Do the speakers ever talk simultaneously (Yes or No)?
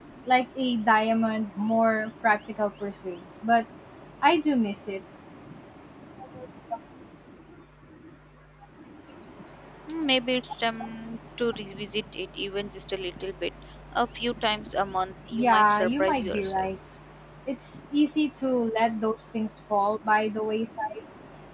Yes